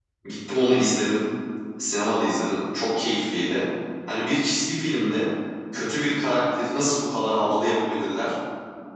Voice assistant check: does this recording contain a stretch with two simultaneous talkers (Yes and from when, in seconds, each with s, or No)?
No